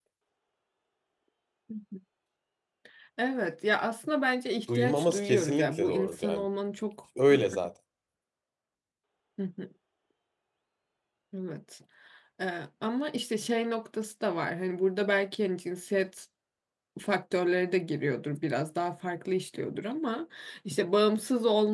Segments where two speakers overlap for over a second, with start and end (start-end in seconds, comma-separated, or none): 4.8-6.5